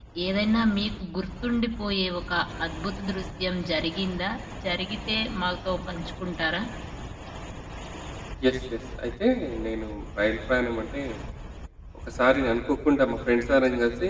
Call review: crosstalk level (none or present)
none